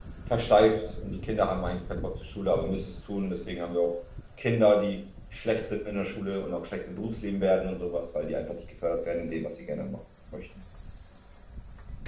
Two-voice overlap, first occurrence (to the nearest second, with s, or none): none